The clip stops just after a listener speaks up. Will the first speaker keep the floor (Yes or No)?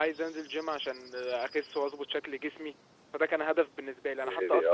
Yes